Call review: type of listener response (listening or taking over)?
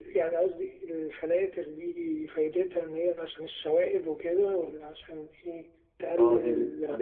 taking over